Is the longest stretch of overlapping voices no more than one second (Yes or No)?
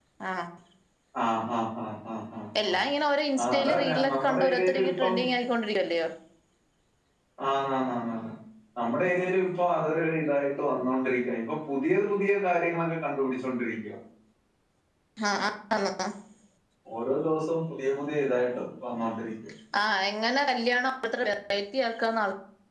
No